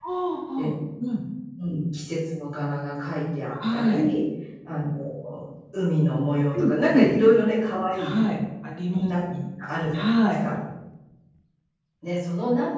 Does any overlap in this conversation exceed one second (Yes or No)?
No